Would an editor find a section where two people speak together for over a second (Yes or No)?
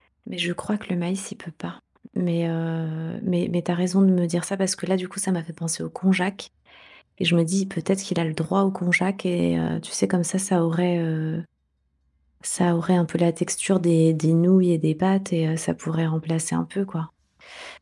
No